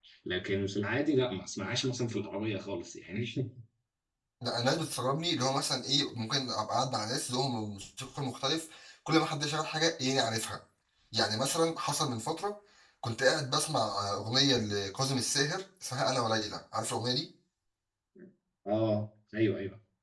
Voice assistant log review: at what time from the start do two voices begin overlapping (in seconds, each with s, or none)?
none